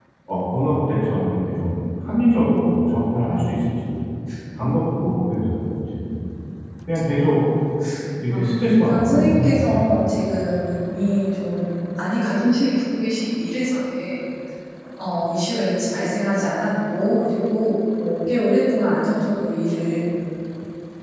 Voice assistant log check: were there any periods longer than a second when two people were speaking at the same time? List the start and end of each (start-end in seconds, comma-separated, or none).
8.3-10.0